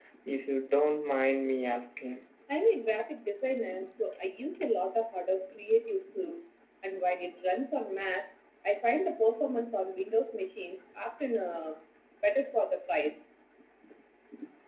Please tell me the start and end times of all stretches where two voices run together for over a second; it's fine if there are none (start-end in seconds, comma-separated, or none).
none